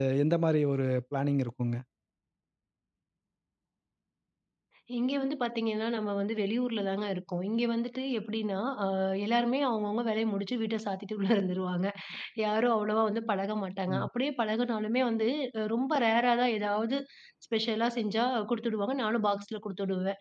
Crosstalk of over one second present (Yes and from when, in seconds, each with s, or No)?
No